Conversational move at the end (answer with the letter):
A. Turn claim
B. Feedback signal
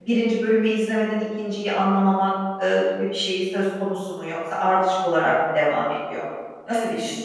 A